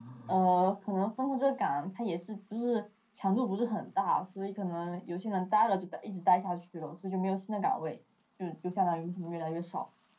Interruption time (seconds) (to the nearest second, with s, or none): none